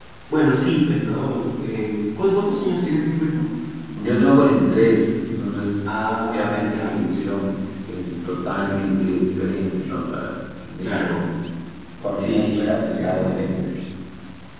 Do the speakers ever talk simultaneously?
Yes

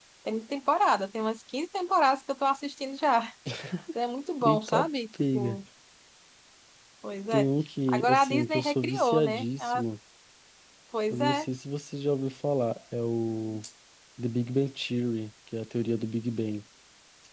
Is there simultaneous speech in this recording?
Yes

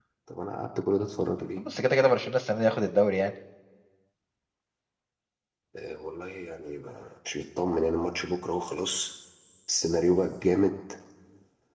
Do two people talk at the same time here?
No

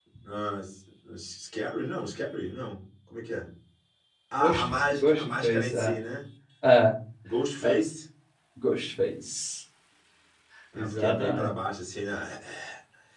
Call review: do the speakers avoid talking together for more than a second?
No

